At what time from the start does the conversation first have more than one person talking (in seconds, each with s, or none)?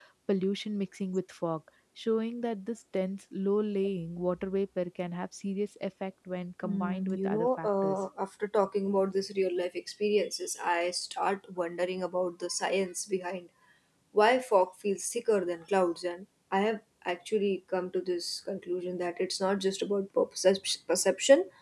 6.6 s